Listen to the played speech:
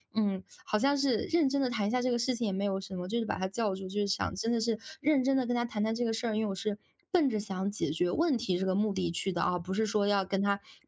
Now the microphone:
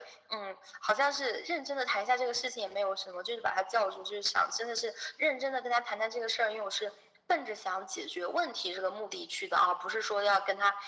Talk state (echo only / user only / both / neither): echo only